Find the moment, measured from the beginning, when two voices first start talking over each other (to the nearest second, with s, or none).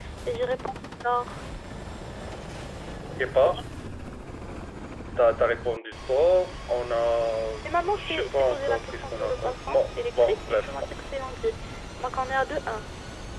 8 s